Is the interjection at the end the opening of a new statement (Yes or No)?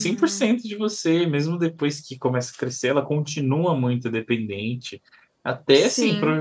No